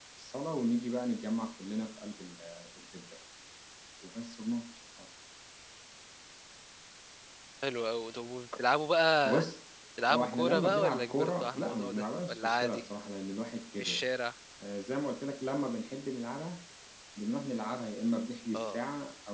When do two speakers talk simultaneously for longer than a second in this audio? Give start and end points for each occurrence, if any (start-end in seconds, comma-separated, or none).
10.1-12.8